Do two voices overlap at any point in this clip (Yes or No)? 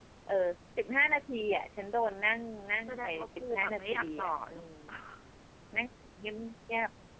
Yes